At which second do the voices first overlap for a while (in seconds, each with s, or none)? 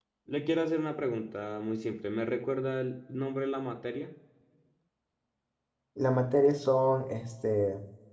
none